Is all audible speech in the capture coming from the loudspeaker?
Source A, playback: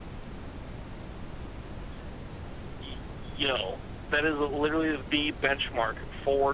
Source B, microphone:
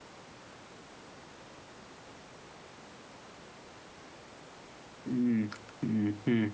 No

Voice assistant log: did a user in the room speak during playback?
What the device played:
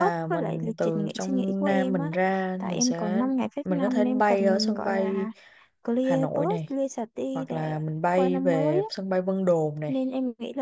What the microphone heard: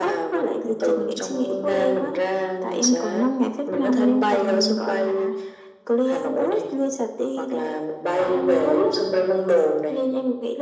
No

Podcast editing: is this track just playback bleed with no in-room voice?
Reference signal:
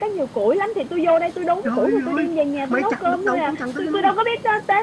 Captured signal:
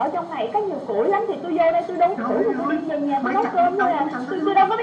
Yes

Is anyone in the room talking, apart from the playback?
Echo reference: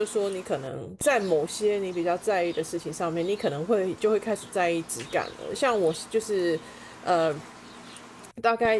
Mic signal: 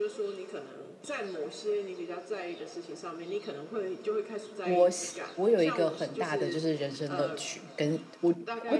Yes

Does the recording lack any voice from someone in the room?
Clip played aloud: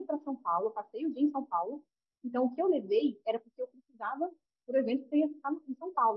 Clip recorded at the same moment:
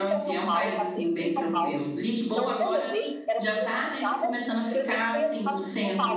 No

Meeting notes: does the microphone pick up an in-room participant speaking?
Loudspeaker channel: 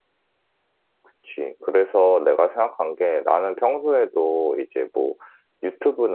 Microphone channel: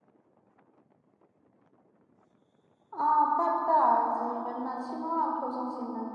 Yes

